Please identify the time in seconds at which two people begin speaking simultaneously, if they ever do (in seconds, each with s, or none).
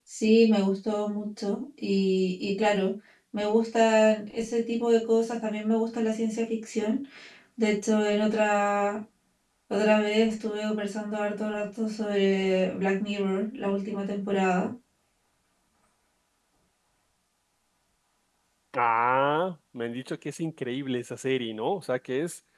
none